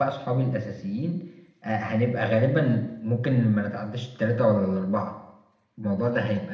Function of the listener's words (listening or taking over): listening